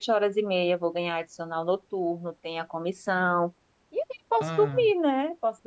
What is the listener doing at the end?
listening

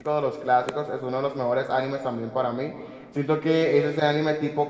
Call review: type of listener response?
listening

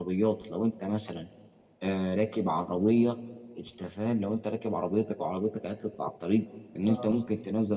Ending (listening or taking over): listening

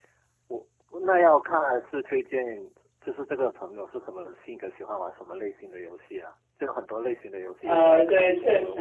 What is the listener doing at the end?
taking over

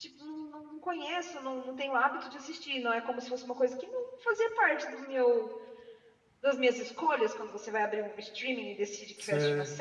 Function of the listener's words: listening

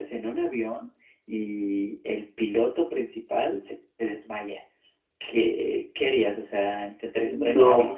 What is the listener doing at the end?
listening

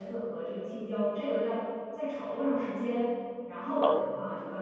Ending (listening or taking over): listening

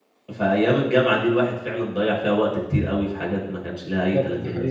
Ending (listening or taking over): taking over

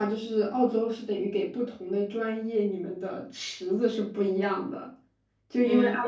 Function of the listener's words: listening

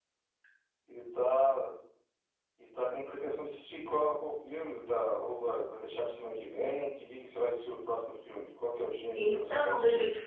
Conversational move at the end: taking over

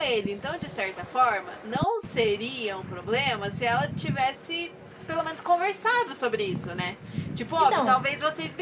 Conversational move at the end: listening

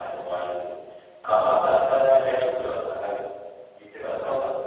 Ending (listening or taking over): listening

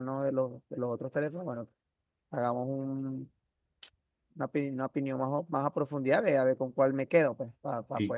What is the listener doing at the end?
taking over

